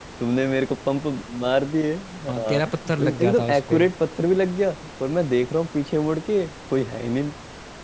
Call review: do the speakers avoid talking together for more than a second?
No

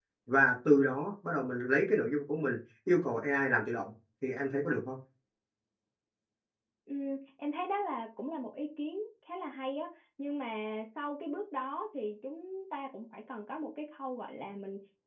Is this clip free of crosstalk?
Yes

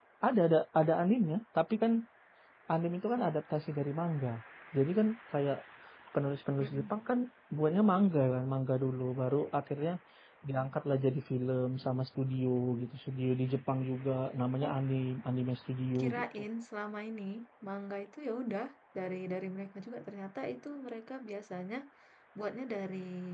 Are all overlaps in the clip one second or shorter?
Yes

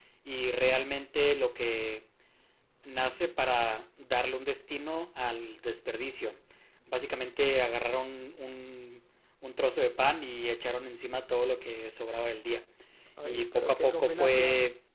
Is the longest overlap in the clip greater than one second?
Yes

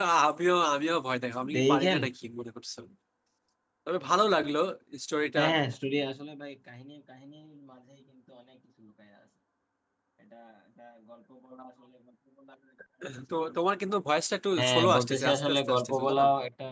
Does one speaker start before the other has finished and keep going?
Yes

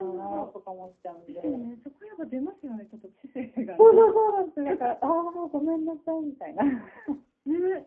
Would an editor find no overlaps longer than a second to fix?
Yes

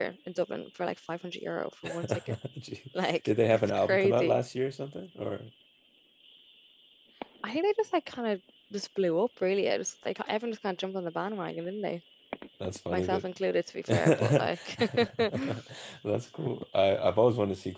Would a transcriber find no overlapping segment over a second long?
No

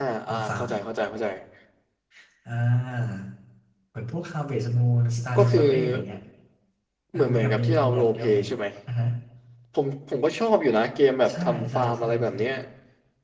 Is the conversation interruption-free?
No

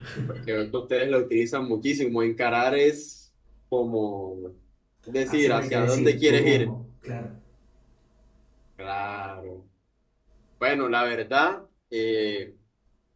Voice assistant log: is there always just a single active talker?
No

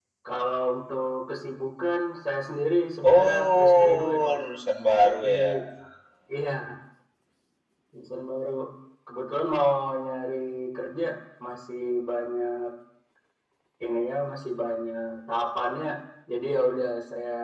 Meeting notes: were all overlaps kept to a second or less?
No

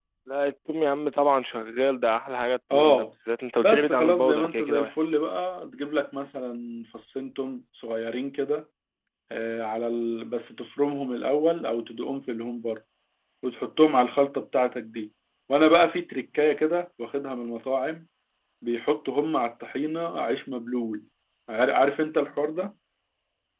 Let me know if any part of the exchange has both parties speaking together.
Yes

